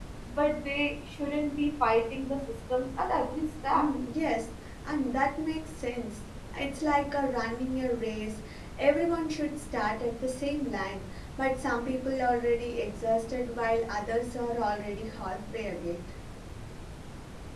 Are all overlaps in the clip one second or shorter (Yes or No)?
Yes